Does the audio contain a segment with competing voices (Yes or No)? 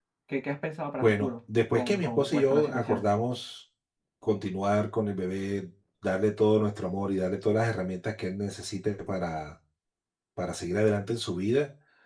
Yes